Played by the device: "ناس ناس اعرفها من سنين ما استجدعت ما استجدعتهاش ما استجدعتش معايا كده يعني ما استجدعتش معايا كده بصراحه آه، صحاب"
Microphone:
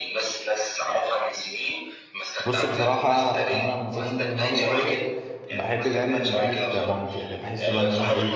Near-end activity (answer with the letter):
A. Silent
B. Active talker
B